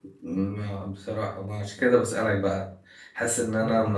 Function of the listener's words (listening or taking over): listening